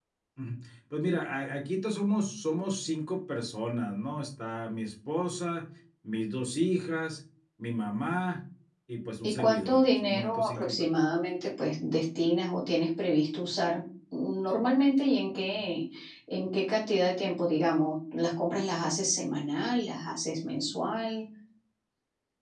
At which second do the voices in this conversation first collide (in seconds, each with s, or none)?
9.2 s